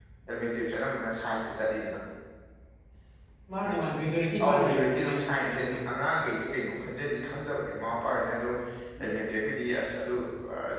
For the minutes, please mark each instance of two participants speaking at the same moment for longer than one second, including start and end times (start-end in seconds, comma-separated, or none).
4.4-5.8